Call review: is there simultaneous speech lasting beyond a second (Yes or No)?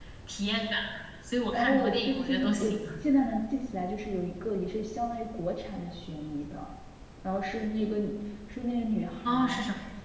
Yes